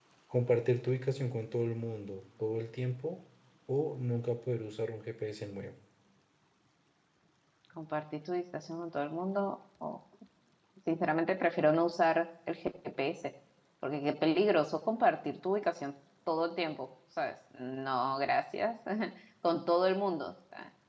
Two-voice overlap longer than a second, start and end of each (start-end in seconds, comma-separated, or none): none